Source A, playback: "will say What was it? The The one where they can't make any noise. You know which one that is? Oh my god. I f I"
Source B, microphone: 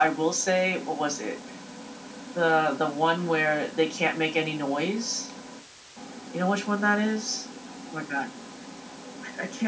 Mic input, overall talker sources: echo only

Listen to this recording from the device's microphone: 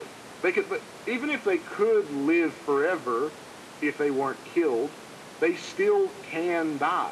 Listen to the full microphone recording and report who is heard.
echo only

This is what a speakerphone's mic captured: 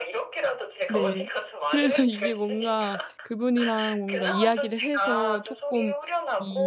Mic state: both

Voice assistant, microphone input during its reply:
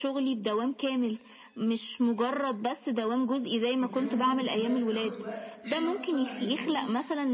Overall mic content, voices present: both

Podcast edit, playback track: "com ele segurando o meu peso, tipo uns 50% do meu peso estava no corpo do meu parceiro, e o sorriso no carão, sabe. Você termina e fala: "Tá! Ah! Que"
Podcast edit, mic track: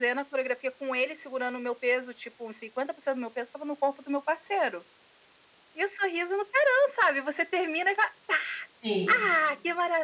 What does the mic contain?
both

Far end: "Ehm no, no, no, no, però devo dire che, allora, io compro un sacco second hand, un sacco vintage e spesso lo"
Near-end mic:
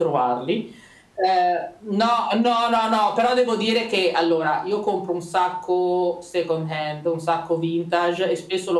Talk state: echo only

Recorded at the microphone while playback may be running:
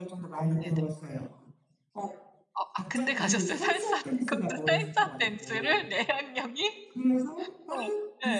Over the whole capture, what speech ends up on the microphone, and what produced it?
both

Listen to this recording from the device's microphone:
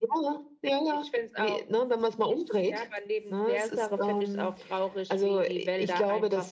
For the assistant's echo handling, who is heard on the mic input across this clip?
echo only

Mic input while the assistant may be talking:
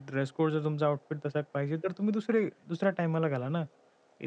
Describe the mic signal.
user only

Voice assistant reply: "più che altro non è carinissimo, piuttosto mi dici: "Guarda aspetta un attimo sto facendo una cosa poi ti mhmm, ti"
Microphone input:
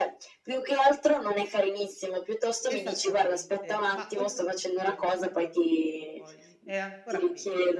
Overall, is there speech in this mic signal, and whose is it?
both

